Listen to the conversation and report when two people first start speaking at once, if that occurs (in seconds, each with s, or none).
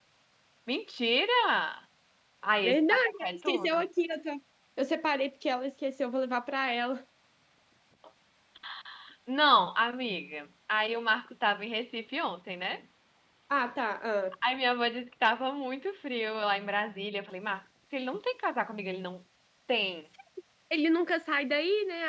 2.6 s